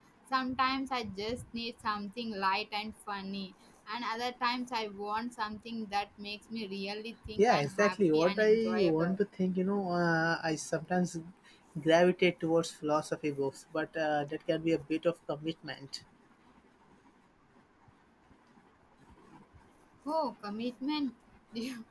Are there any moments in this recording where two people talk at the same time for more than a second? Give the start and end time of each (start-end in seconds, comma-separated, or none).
7.4-9.2